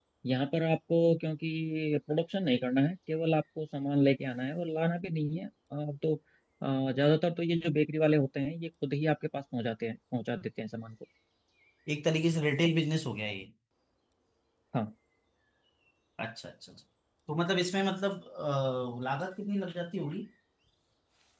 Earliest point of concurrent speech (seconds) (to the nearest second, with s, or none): none